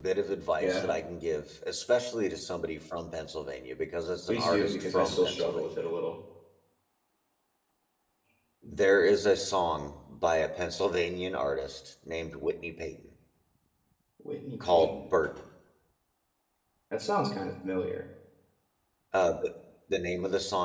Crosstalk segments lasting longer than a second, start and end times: 4.3-5.7

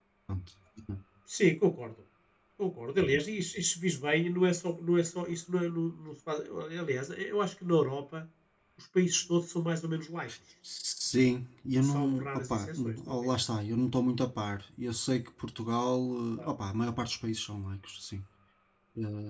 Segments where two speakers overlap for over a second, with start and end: 11.8-13.3

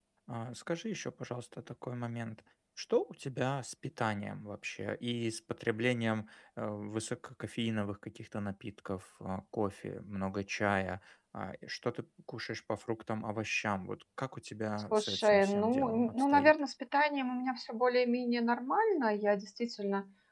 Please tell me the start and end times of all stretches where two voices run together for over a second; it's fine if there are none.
14.9-16.5

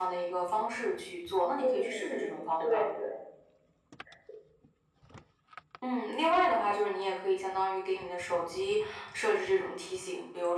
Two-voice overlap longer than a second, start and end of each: 1.6-2.8

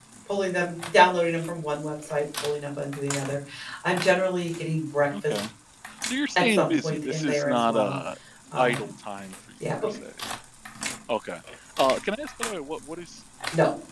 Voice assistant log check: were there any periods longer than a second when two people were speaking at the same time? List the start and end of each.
6.4-8.0

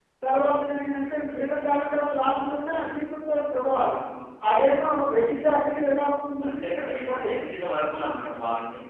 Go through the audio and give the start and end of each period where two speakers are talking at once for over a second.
none

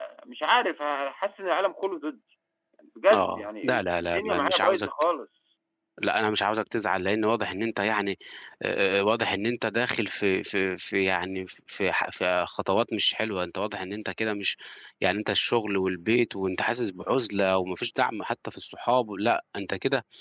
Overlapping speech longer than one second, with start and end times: 3.1-4.9

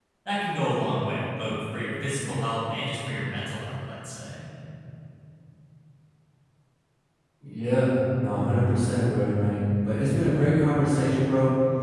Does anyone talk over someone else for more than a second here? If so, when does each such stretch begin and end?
none

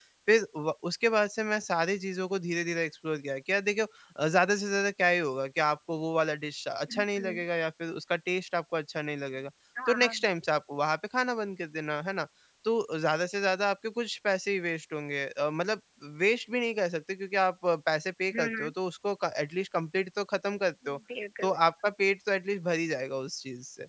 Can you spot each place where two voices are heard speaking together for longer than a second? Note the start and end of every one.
none

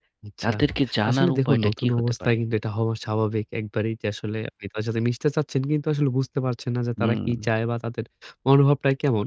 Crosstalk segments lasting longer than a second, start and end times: 1.1-2.4

